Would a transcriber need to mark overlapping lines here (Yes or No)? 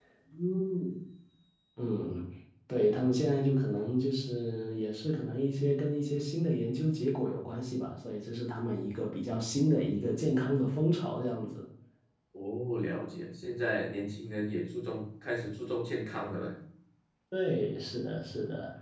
No